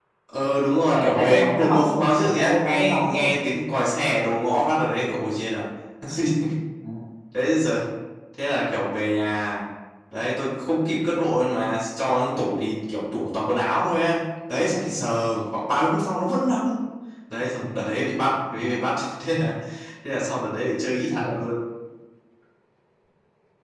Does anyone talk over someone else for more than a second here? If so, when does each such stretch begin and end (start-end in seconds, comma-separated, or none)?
0.7-3.3